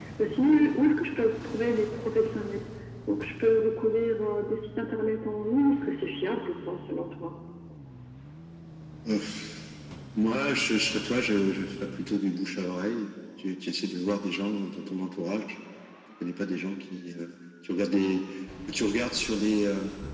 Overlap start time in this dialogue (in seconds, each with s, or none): none